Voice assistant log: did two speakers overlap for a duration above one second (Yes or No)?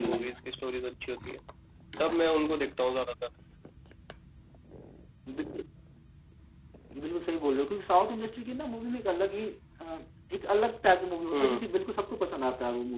No